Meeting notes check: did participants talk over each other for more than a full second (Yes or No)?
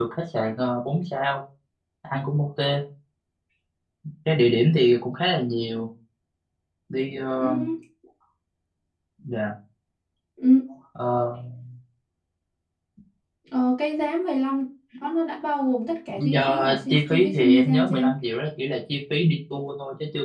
Yes